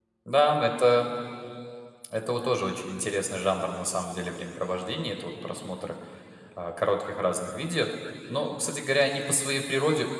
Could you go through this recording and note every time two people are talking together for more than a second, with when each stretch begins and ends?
none

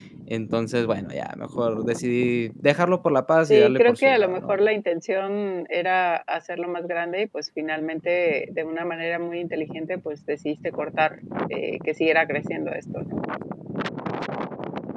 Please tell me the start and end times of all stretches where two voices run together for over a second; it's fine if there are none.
3.5-4.7

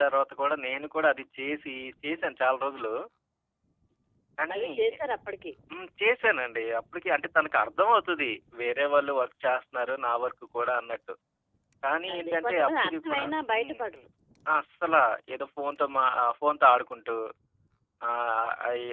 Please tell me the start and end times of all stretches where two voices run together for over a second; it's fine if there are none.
12.1-13.8

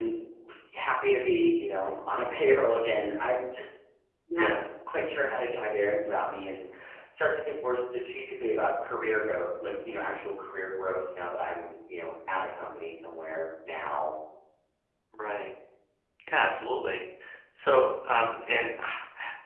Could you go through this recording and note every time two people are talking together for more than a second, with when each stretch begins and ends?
none

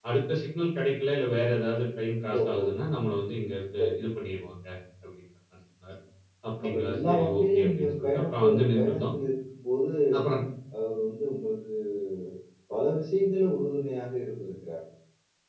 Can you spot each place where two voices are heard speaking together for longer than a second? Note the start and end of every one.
6.6-9.0

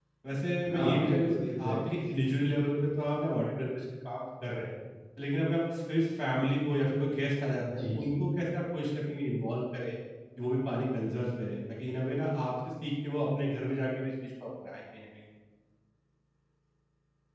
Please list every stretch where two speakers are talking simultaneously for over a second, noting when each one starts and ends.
0.7-2.2

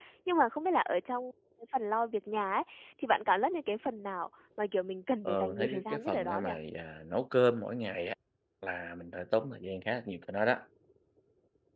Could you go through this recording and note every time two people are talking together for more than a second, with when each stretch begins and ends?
5.2-6.5

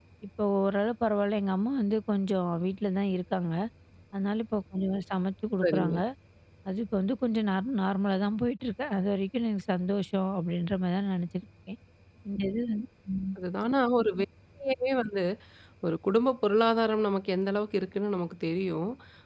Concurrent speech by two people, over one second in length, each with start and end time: none

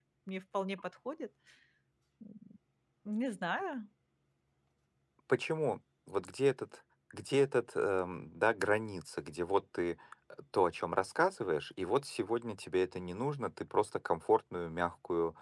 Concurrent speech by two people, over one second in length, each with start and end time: none

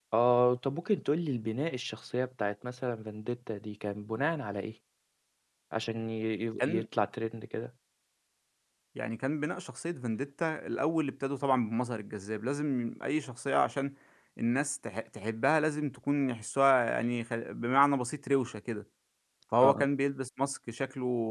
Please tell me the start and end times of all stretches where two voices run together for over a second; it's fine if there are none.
none

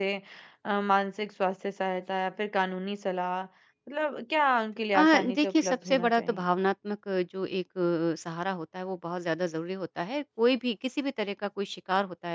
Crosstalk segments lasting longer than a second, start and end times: 5.0-6.5

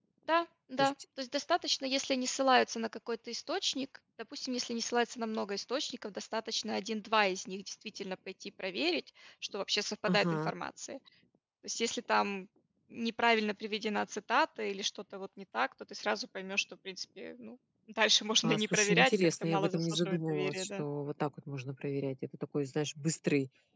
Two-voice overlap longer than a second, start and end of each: 18.4-20.8

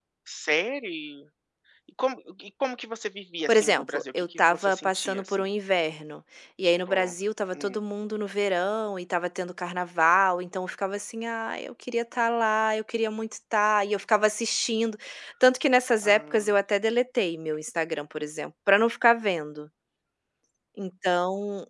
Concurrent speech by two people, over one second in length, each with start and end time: 3.5-5.5

